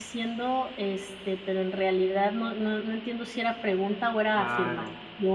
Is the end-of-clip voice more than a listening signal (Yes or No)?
Yes